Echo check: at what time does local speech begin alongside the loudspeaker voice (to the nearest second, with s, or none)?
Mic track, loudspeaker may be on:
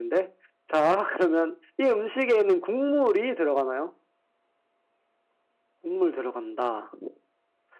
none